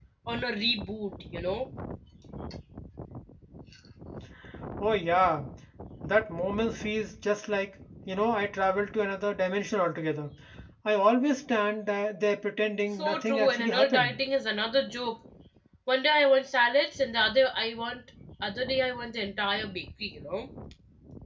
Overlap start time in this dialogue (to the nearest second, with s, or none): 13 s